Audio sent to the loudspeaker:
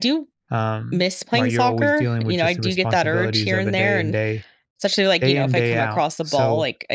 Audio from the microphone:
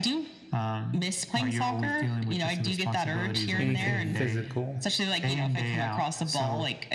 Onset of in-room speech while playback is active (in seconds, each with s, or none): 3.6 s